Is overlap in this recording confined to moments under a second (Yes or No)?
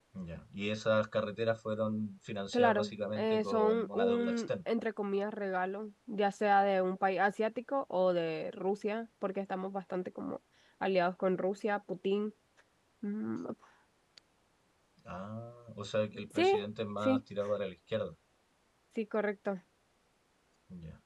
No